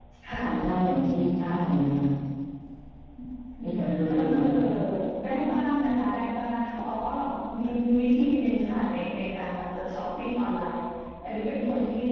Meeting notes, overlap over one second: none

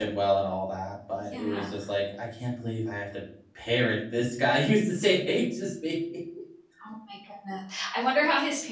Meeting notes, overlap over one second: none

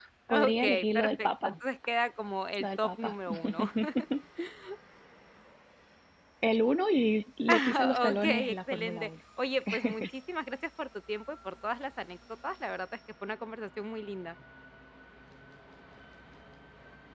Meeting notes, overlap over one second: present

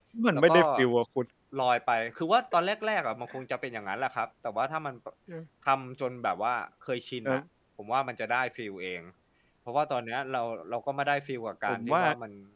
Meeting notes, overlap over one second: none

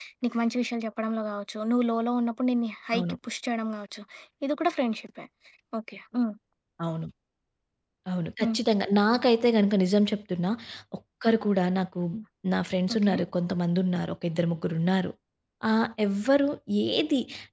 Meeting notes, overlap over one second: none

